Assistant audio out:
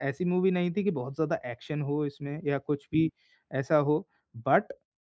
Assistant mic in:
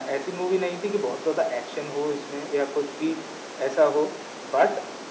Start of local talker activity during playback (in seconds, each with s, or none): none